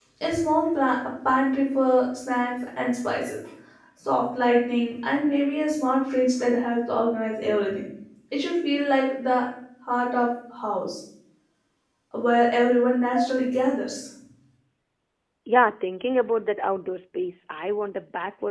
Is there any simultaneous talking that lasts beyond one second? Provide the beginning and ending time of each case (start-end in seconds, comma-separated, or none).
none